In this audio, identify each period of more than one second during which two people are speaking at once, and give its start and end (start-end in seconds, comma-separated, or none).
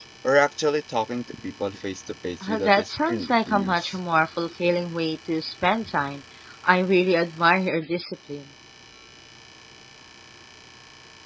2.4-4.0